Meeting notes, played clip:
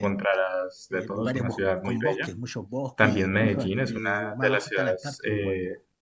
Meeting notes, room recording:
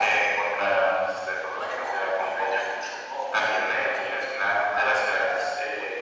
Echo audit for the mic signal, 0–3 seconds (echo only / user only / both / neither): echo only